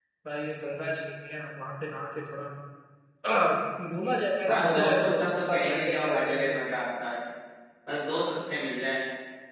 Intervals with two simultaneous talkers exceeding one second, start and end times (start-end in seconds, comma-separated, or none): 4.5-6.5